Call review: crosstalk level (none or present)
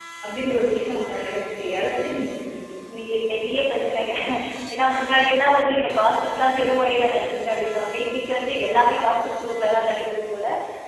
none